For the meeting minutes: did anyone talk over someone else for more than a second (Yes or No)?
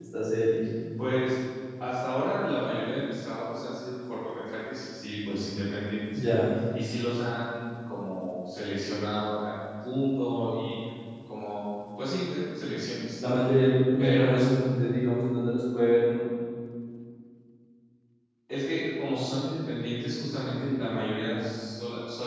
No